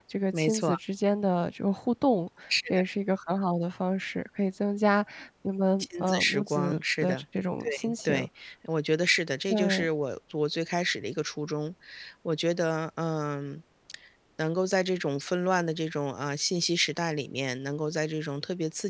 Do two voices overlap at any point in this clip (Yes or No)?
Yes